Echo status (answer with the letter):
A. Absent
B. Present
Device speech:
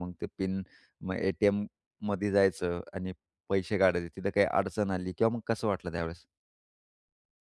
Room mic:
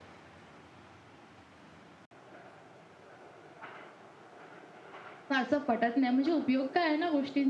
A